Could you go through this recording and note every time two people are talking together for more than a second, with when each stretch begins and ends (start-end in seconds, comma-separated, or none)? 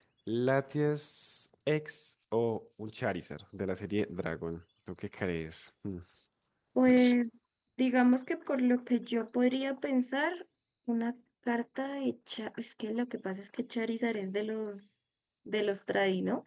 none